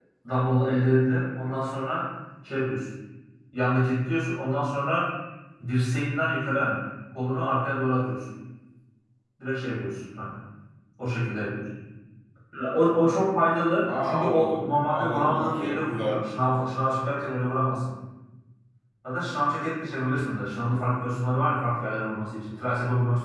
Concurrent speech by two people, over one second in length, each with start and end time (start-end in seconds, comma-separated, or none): 13.8-16.2